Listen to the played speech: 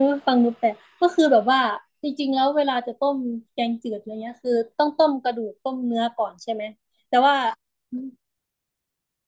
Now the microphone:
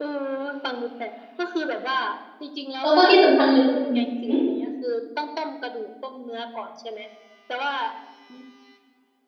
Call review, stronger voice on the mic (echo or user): user